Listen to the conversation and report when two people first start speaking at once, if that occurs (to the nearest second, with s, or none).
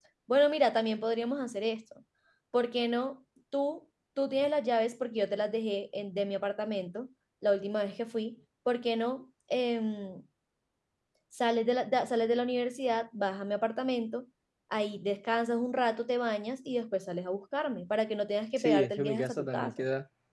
19 s